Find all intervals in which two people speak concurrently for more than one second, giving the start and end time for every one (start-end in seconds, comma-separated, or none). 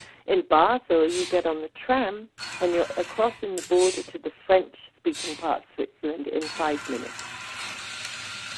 none